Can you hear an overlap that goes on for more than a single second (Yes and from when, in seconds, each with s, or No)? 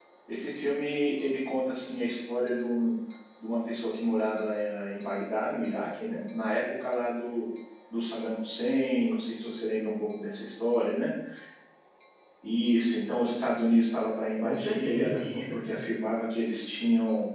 Yes, from 14.4 s